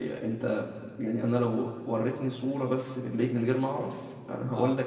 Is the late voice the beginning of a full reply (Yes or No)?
No